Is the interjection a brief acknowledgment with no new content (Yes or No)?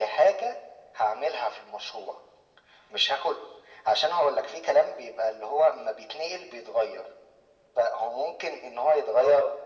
Yes